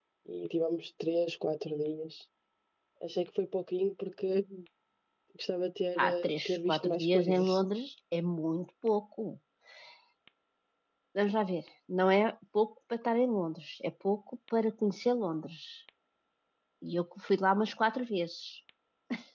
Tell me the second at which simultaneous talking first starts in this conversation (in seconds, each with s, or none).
6.0 s